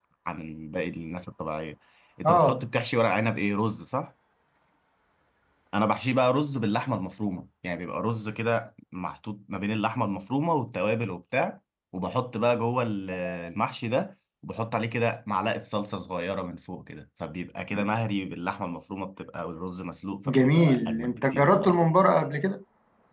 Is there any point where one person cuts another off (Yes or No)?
Yes